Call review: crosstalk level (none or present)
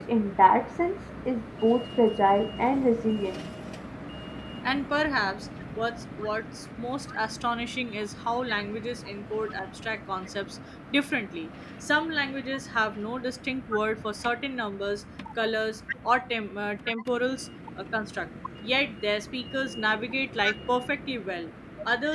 none